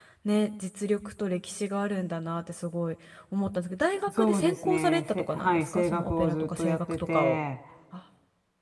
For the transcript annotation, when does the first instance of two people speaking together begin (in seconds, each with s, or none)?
4.1 s